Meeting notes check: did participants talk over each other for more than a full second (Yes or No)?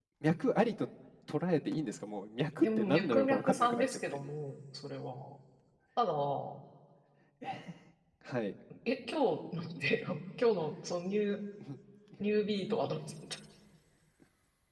Yes